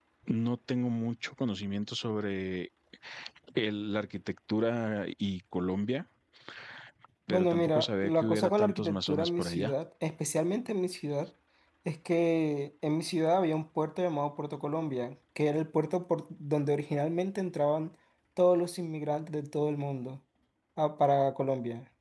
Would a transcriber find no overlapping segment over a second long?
No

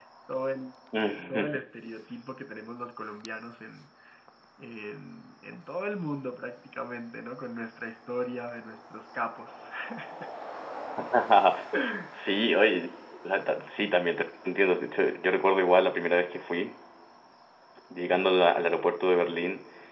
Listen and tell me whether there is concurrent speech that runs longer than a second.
No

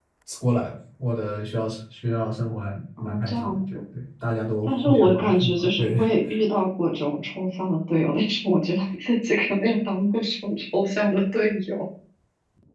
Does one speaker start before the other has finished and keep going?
Yes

